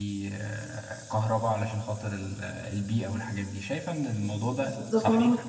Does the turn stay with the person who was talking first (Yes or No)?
No